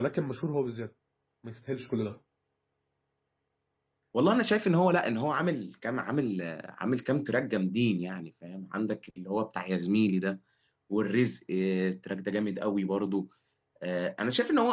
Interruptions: none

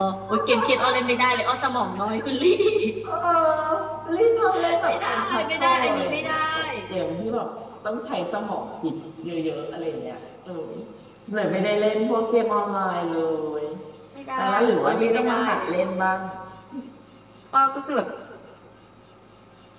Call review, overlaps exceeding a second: present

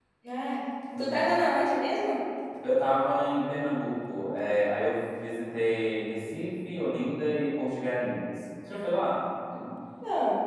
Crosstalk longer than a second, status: none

